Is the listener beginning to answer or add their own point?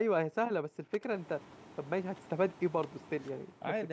Yes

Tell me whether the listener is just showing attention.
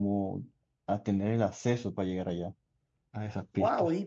No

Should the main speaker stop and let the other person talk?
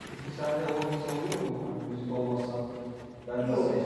No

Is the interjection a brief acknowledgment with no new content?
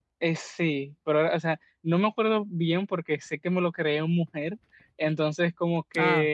Yes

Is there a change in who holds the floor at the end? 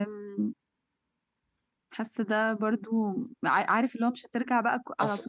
No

